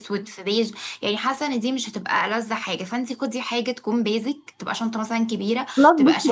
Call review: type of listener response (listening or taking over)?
taking over